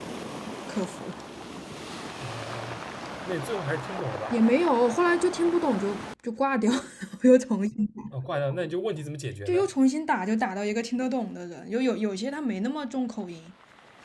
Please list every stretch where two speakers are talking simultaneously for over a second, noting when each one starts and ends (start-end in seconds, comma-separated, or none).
none